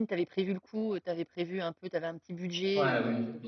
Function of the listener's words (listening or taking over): taking over